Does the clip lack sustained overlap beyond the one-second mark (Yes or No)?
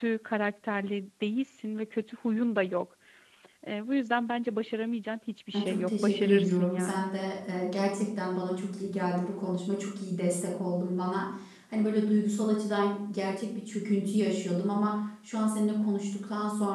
No